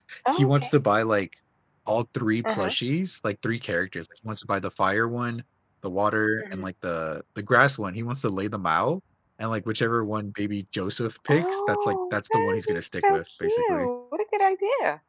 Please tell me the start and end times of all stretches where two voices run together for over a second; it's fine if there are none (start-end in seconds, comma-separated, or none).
11.3-13.9